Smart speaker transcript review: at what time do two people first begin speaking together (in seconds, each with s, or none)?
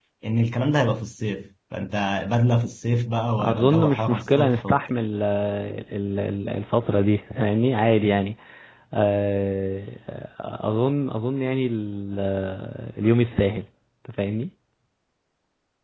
3.4 s